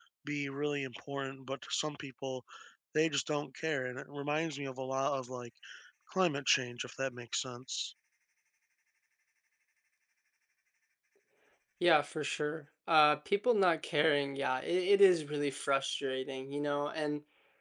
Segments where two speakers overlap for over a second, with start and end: none

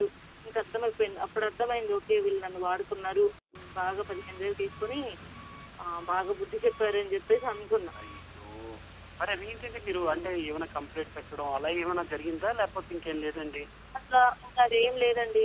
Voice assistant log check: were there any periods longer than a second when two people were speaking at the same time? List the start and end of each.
none

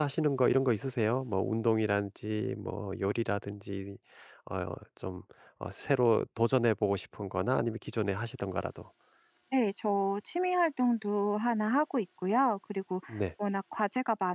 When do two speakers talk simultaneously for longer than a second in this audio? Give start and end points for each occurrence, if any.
none

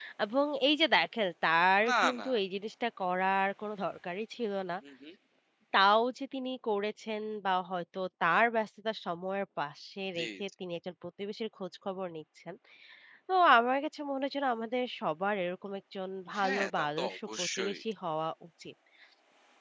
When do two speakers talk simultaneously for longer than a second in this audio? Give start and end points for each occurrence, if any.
16.4-17.8

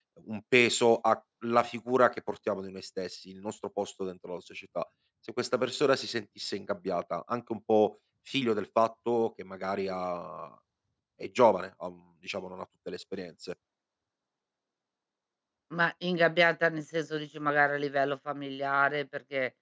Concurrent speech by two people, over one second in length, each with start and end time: none

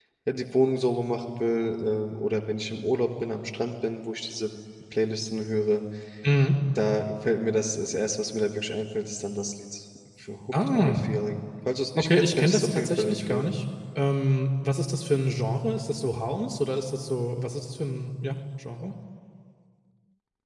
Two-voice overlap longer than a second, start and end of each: 12.0-13.5

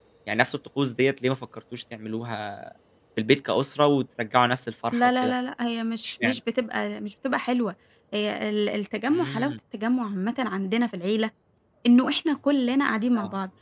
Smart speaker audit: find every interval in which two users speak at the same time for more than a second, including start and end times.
none

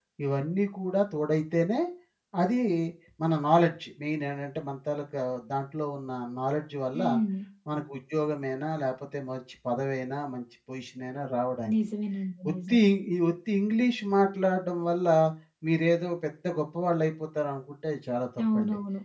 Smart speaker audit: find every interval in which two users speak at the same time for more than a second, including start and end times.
none

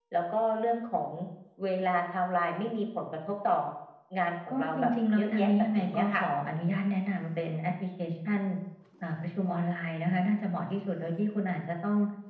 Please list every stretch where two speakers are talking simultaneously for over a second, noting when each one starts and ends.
4.5-6.2

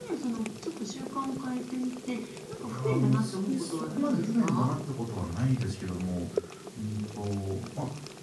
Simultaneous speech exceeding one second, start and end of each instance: 2.6-4.7

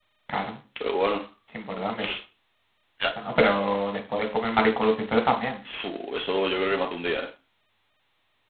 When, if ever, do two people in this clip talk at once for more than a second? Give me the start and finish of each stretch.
none

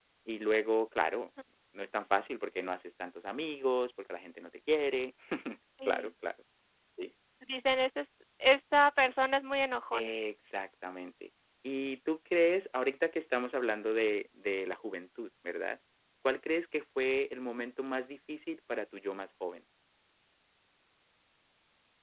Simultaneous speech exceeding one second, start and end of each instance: none

